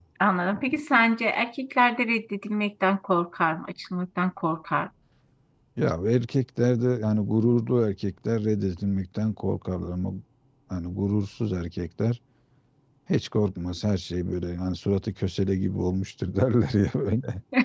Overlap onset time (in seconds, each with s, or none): none